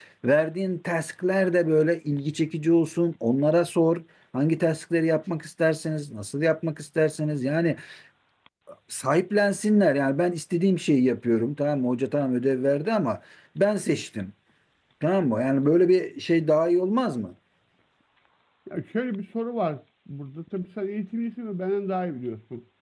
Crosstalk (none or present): none